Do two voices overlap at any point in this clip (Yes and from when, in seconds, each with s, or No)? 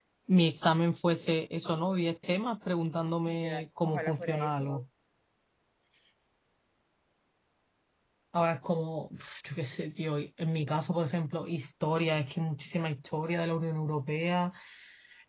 Yes, from 3.3 s